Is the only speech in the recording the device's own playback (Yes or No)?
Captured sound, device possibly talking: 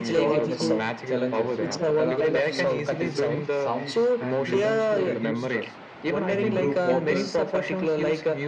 No